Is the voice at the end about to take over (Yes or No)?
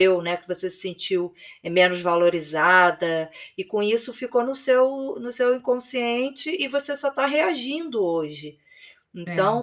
No